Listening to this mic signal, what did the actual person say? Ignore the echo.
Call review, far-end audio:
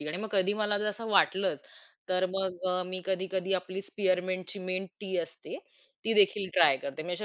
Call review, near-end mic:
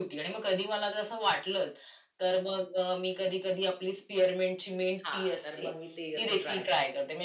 हां, तर मग मी ते असं ट्राय करते.

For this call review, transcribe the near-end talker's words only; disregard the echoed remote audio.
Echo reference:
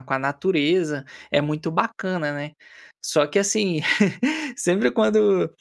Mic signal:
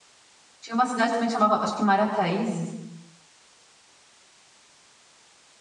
Tinha uma cidade também chamava acho que Marataízes.

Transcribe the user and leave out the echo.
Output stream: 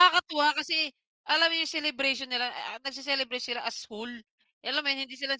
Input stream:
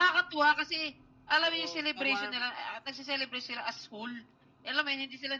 oo, ka-warm.

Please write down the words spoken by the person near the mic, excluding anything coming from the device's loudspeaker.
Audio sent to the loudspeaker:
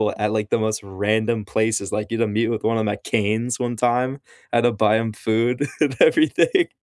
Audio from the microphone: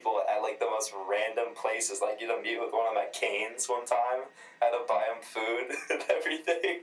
none

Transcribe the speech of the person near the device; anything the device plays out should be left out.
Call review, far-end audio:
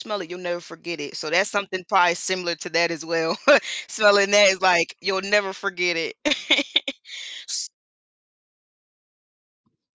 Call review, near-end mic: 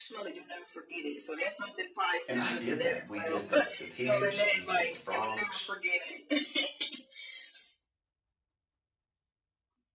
and I did that. We did the the pigs, we did the frogs

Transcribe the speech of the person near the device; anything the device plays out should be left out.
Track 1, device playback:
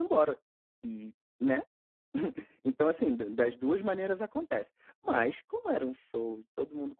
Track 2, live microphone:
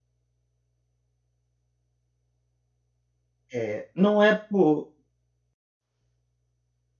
É, não é por

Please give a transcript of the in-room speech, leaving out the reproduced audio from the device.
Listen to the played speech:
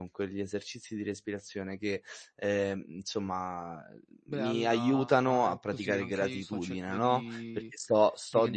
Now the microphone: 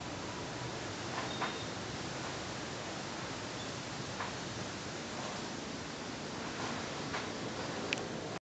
none

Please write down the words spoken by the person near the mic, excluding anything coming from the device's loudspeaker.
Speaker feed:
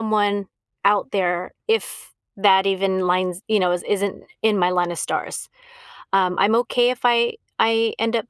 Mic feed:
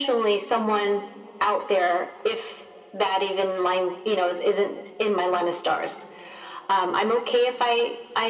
none

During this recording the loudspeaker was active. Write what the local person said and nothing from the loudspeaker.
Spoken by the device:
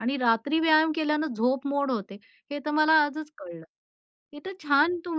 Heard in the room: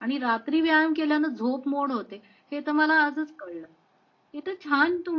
none

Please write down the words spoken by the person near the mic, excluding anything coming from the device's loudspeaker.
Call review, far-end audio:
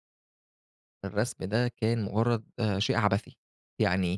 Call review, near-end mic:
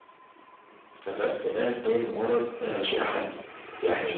none

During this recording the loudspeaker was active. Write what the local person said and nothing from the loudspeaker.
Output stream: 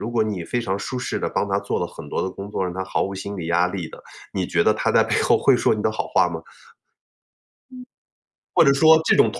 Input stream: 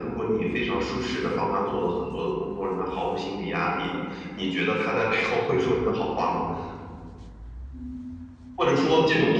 none

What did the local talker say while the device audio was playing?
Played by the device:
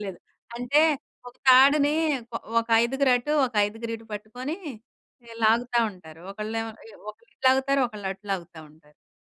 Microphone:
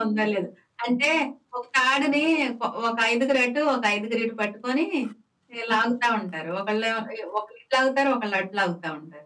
none

